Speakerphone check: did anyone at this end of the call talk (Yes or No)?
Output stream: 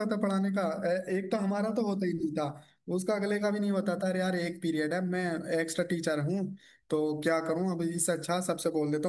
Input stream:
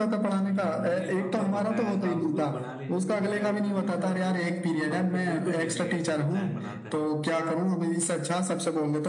Yes